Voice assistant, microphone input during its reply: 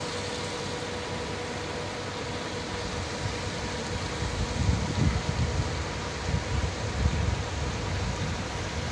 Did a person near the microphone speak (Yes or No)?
No